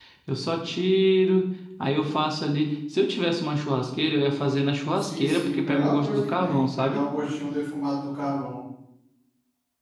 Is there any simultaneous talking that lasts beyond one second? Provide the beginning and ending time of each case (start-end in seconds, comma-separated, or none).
5.0-7.0